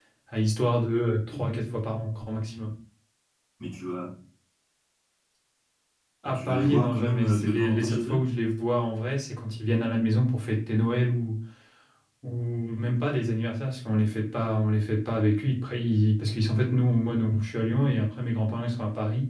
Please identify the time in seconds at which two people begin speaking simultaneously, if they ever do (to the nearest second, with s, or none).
6 s